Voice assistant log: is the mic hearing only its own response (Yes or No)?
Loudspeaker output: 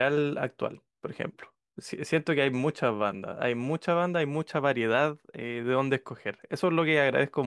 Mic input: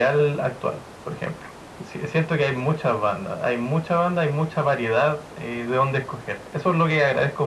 Yes